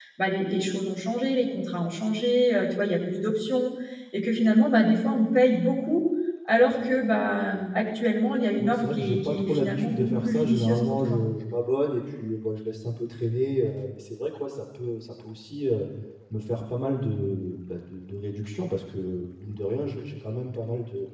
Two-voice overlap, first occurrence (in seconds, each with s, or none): 8.6 s